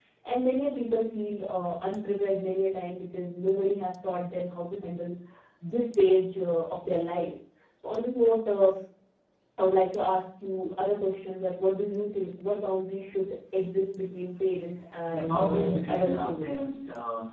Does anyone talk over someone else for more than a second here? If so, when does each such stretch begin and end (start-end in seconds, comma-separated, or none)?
15.1-16.5